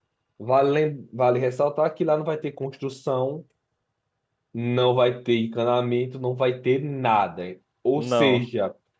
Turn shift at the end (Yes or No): No